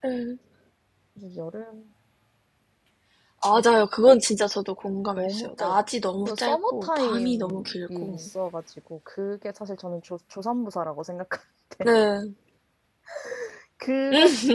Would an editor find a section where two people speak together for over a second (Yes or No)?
Yes